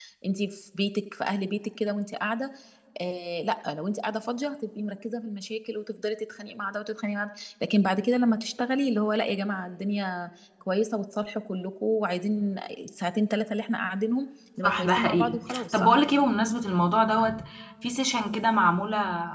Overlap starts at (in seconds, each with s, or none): 14.6 s